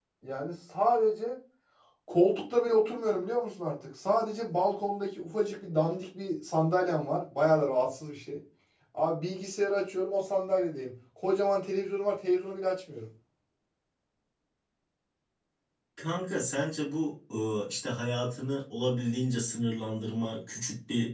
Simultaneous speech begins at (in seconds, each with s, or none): none